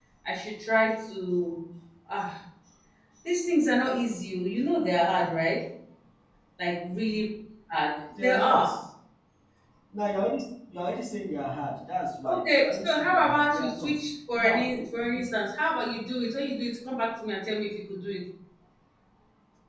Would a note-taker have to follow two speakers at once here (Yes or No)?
Yes